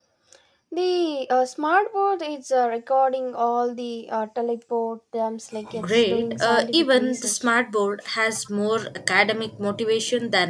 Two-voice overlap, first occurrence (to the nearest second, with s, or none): 6 s